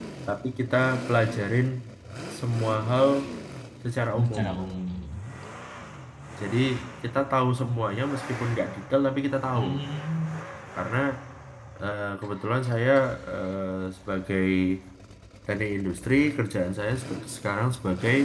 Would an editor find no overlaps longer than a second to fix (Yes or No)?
Yes